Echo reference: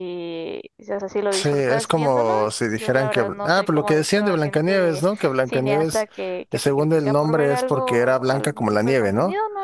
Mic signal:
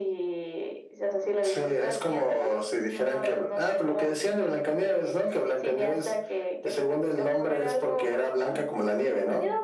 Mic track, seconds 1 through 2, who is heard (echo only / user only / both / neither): echo only